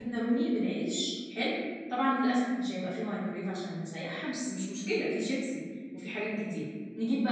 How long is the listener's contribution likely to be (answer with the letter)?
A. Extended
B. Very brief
B